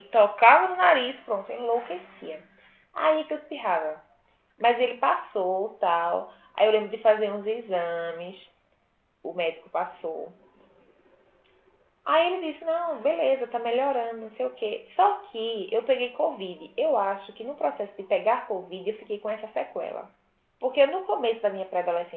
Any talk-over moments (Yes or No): No